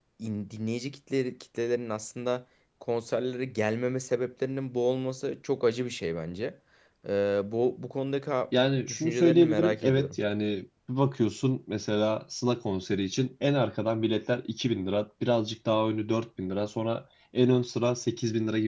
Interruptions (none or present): present